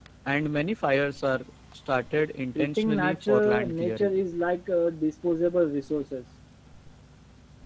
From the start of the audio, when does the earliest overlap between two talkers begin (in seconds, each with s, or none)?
2.5 s